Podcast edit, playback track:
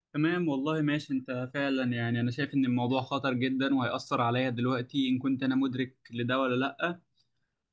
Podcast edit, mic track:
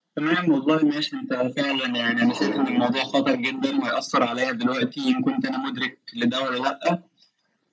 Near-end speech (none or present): present